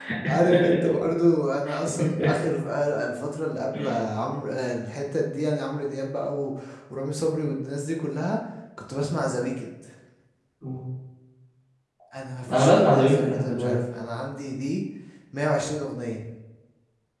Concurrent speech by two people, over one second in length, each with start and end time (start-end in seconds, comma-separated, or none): 12.5-13.8